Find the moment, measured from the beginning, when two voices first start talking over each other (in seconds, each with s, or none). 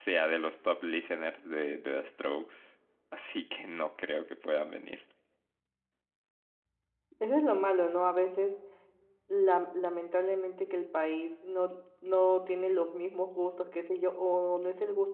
none